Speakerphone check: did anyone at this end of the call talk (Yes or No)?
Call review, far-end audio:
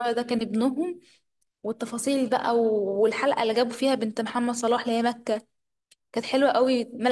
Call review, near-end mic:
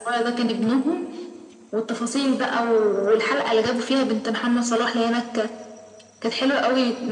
No